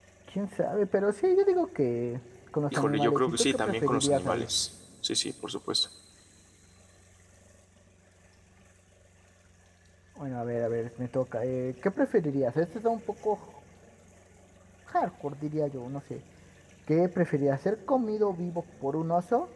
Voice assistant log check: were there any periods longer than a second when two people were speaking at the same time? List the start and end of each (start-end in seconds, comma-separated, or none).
2.7-4.5